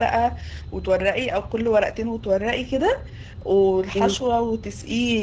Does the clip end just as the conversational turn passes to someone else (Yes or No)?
No